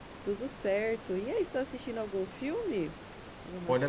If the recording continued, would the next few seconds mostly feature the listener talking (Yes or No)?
Yes